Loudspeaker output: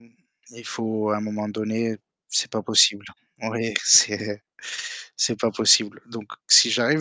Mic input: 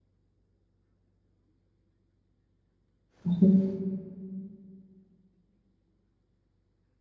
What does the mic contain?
user only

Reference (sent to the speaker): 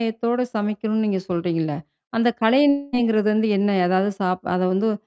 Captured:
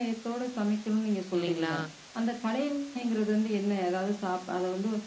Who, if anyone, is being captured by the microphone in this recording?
both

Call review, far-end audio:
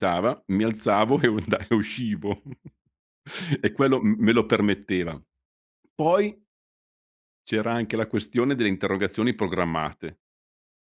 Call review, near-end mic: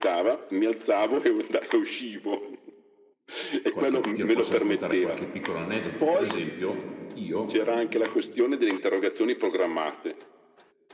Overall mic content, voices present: both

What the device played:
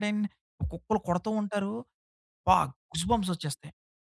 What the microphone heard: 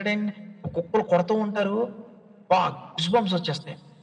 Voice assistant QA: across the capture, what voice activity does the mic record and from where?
echo only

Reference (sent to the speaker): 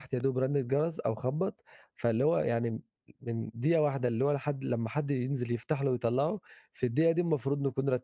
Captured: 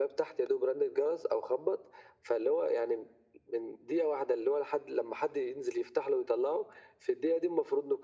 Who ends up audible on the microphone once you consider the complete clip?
echo only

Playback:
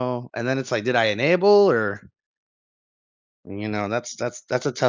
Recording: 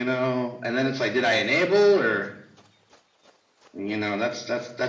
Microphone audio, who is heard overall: echo only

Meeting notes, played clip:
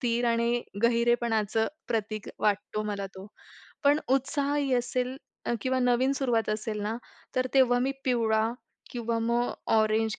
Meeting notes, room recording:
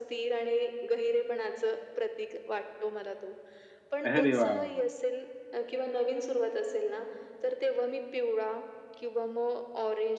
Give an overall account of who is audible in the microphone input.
both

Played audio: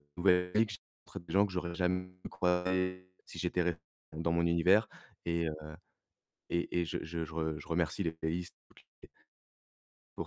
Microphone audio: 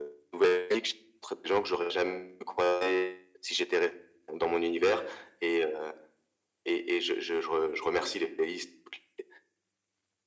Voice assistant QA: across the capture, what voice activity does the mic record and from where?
echo only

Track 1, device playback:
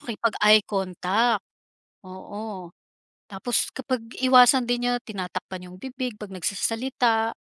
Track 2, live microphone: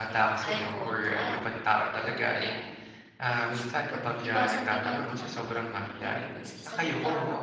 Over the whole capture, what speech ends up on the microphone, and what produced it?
both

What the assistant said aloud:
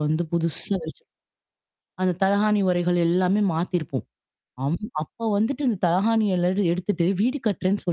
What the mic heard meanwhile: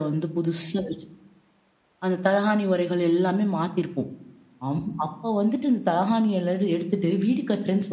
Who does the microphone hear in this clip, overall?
echo only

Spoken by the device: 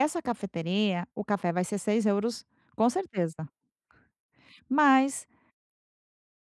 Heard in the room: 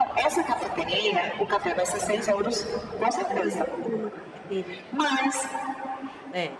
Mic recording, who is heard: both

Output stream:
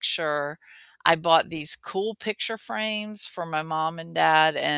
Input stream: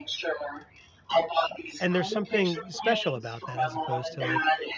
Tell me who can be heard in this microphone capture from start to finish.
both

